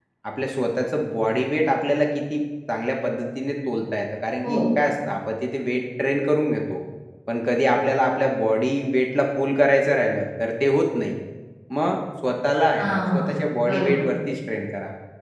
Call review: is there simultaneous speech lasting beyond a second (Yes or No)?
Yes